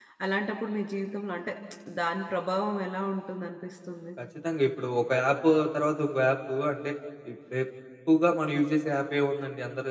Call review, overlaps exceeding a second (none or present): none